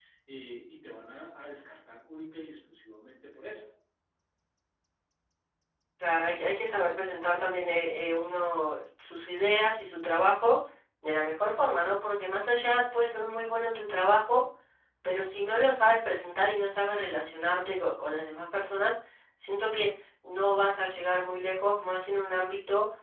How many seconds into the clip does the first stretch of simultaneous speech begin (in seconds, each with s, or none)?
none